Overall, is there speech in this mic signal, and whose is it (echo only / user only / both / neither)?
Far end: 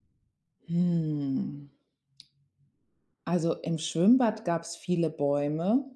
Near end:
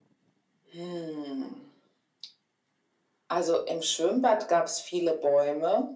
echo only